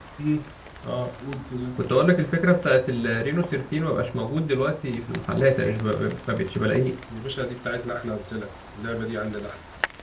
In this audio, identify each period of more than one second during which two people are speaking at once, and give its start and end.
none

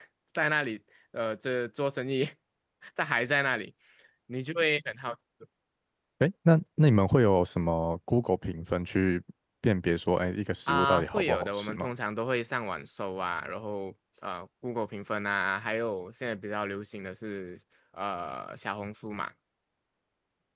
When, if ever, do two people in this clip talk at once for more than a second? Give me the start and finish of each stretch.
10.7-11.9

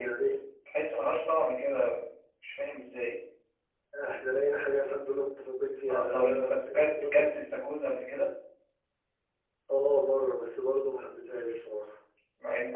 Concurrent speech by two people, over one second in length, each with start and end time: 5.9-7.3

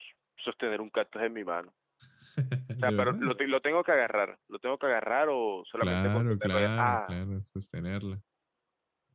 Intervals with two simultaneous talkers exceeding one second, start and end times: 5.8-7.2

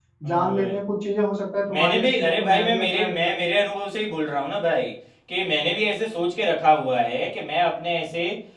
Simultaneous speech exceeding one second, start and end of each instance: 1.7-3.5

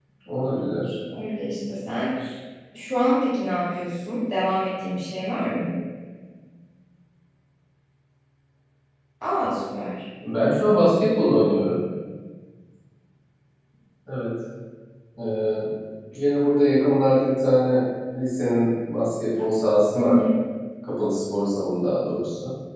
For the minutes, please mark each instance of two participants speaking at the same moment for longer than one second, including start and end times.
none

